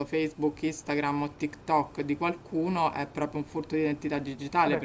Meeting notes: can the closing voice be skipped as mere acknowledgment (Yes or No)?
No